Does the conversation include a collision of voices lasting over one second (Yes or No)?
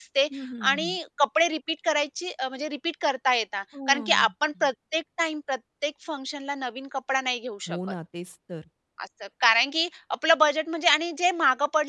No